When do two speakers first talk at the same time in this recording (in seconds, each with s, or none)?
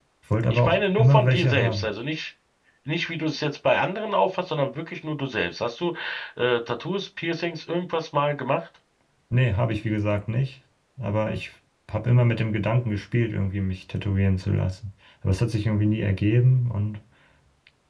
0.5 s